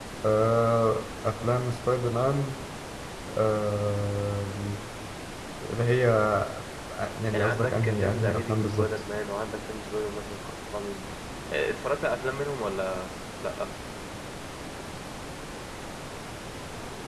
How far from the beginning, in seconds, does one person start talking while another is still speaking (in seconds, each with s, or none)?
7.3 s